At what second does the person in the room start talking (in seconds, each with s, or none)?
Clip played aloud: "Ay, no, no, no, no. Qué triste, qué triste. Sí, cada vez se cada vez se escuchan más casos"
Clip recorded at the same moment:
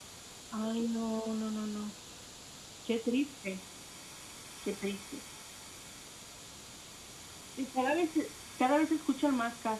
none